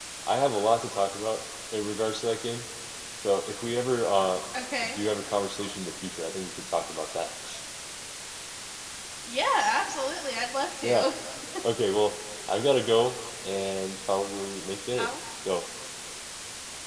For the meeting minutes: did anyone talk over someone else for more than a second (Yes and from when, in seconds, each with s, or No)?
No